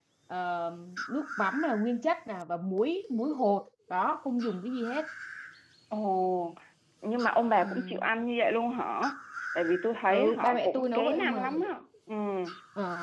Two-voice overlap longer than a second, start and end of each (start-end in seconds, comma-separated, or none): 10.1-11.6